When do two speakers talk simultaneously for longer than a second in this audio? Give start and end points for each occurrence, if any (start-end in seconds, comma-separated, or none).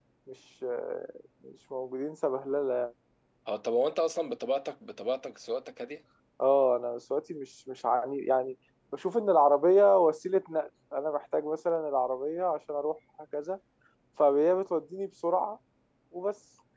none